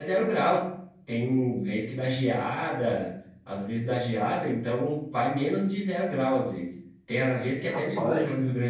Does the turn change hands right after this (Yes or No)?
No